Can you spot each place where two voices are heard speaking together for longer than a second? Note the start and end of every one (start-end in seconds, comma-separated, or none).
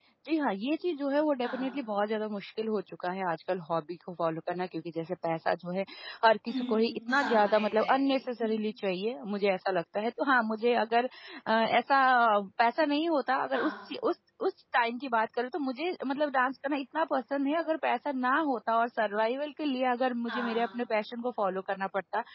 6.5-8.2